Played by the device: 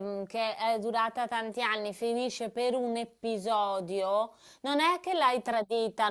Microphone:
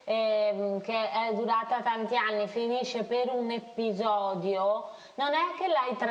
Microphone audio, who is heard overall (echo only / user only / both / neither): echo only